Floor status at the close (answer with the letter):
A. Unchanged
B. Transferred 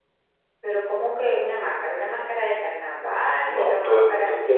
B